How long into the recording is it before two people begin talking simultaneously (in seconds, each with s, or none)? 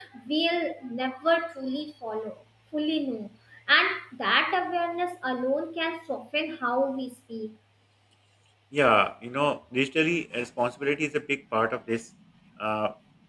none